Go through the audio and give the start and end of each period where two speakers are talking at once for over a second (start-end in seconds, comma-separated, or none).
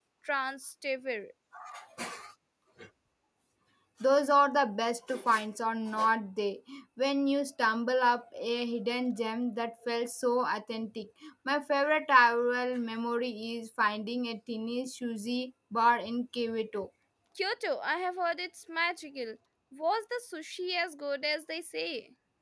none